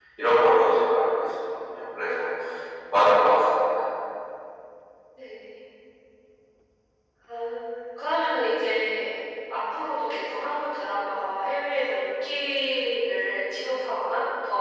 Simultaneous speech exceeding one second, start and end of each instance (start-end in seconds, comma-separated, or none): none